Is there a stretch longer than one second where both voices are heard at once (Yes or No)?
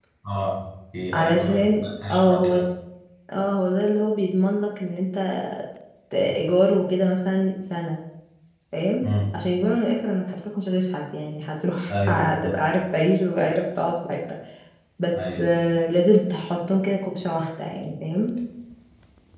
Yes